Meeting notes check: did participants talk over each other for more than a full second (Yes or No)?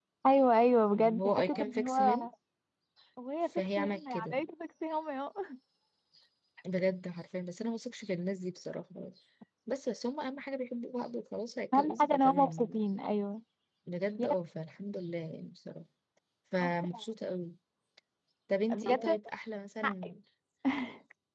Yes